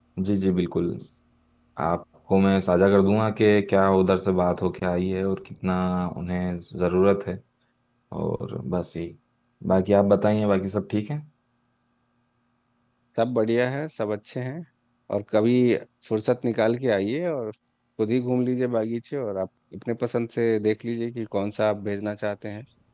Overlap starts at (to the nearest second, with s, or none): none